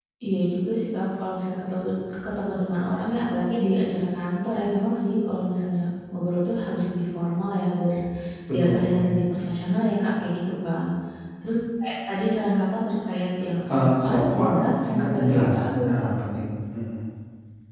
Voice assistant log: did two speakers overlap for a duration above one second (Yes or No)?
Yes